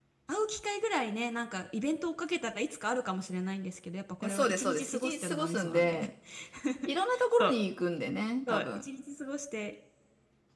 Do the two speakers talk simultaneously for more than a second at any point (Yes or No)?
Yes